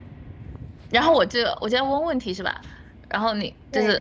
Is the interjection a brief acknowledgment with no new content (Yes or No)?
No